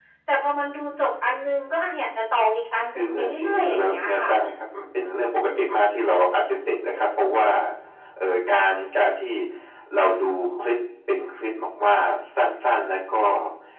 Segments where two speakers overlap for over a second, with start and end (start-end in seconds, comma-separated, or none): 3.0-4.3